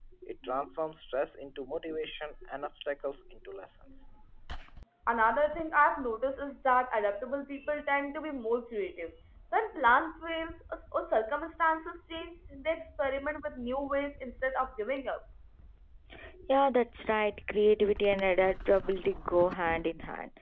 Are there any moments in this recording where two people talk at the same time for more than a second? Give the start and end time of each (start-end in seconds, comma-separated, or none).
none